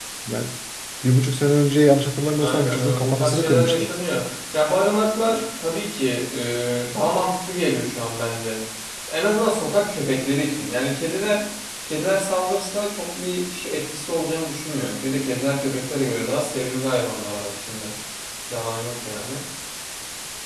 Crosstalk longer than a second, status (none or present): present